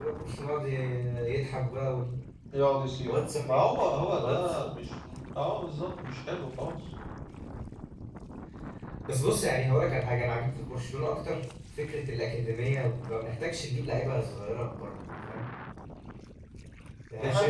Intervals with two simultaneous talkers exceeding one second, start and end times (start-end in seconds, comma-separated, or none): none